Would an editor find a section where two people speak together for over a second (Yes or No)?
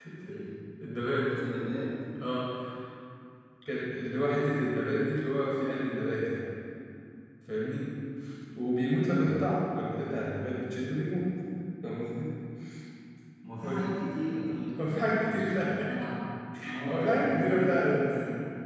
Yes